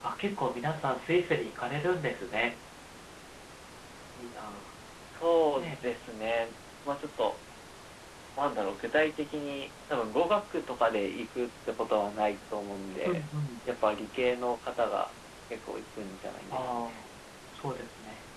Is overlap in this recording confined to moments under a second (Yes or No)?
Yes